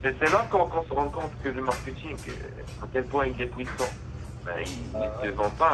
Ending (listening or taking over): listening